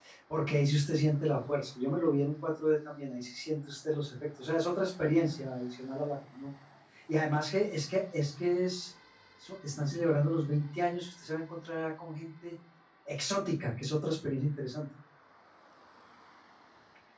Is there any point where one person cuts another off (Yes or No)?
No